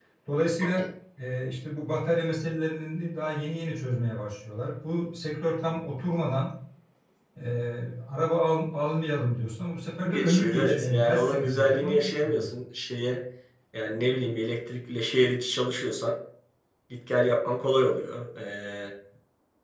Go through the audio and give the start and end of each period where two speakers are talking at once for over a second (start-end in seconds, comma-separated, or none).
10.1-12.5